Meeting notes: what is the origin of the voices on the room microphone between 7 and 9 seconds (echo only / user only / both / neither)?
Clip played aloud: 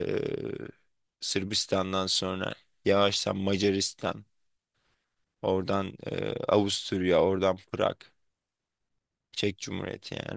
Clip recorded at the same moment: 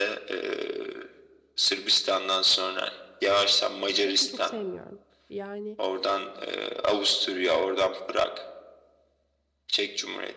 echo only